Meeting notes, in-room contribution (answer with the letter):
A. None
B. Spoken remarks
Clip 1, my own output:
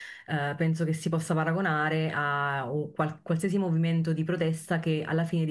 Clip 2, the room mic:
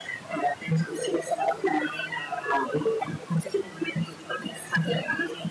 A